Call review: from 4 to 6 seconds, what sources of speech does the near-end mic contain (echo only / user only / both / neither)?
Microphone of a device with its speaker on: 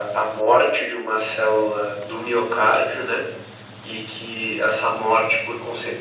echo only